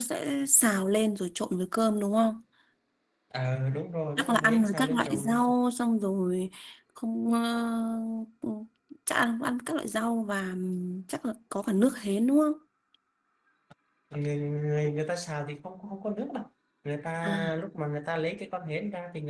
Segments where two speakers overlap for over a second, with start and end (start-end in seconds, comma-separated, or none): 4.2-5.4